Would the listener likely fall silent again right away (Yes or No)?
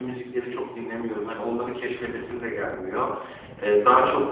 Yes